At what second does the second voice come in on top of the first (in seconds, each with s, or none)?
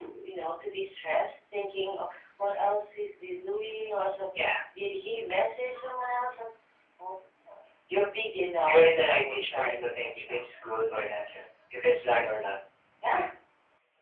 8.7 s